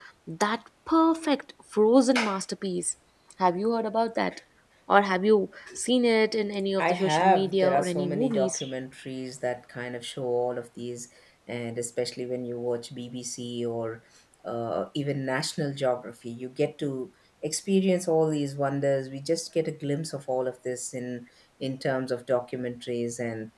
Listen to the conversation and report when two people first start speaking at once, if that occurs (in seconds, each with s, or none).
6.8 s